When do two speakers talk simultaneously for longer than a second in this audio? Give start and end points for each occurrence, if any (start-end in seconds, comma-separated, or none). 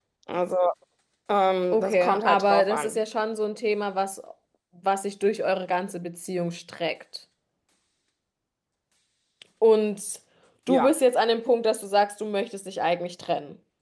1.7-3.0